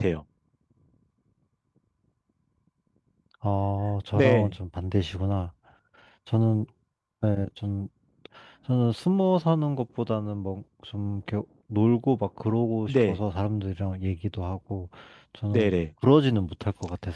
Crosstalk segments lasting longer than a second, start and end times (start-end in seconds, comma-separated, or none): none